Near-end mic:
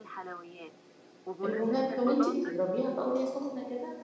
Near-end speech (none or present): present